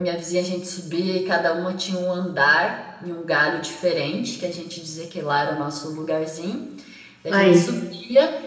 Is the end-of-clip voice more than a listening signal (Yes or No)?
No